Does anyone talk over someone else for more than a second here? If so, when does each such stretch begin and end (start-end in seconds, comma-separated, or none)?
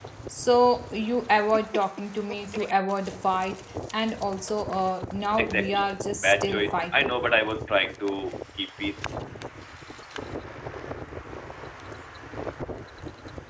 5.4-7.1